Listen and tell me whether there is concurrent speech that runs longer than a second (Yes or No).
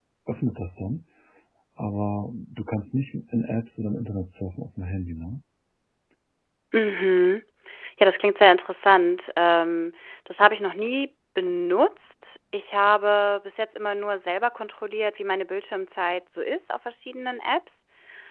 No